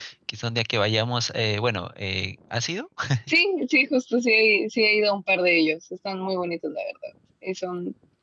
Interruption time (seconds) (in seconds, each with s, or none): none